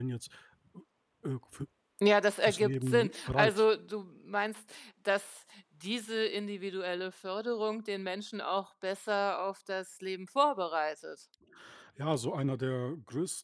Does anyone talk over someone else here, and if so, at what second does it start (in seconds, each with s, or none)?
2.4 s